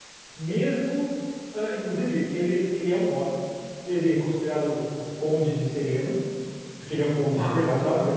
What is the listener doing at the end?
listening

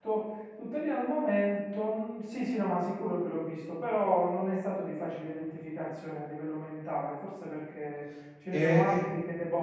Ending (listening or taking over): listening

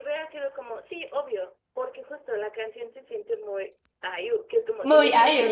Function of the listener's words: listening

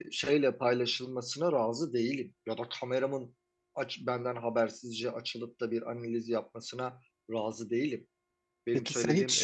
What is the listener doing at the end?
taking over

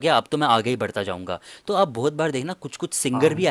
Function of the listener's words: listening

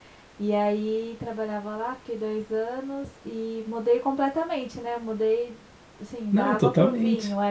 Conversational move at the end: listening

